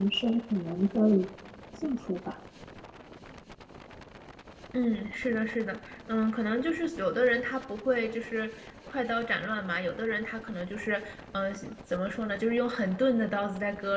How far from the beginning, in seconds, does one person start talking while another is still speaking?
none

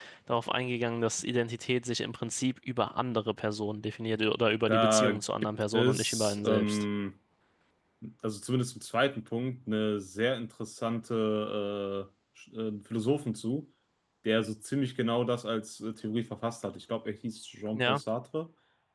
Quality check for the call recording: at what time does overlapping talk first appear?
4.7 s

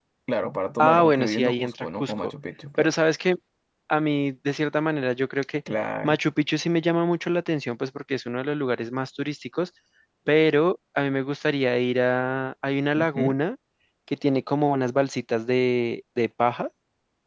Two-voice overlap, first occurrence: 0.8 s

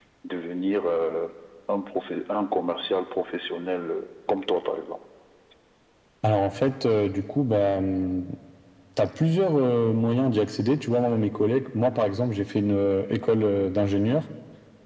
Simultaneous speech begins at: none

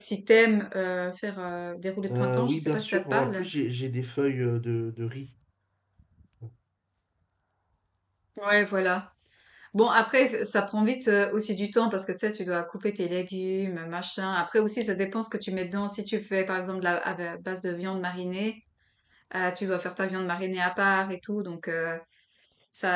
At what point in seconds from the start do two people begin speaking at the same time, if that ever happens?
2.1 s

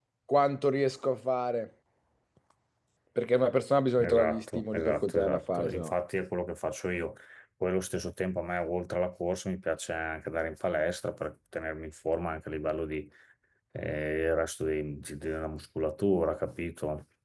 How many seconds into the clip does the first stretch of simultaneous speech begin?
4.0 s

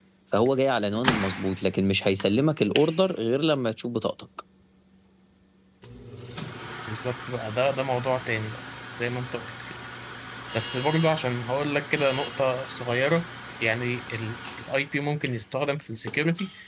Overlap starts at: none

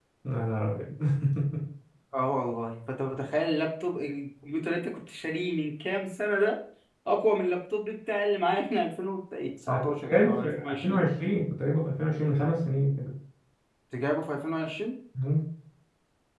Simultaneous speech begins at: 9.7 s

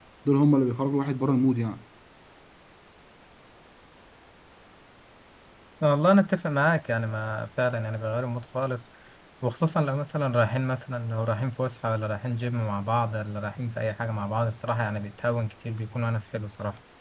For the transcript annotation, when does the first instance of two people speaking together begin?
none

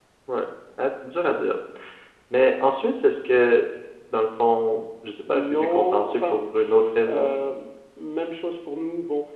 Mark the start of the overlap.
5.3 s

